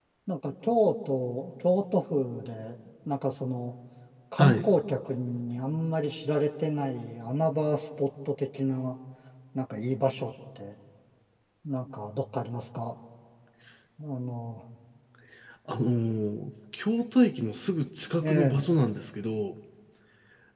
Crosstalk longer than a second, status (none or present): none